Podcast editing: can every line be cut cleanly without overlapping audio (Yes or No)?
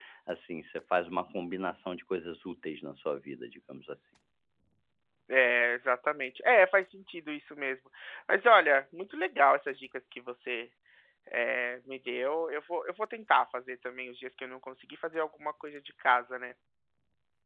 Yes